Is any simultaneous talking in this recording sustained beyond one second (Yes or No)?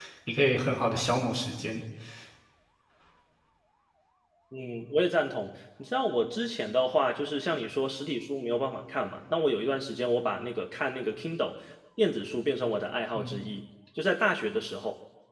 No